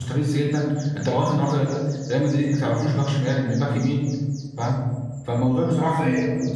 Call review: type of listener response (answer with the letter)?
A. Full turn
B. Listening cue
B